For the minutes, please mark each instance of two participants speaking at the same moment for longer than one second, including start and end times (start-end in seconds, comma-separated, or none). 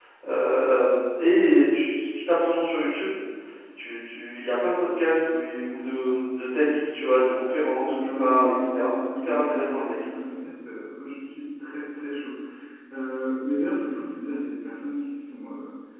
7.4-10.0